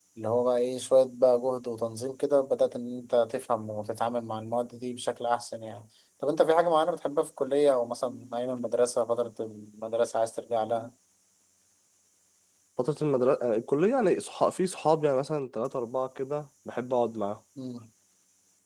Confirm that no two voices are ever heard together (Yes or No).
Yes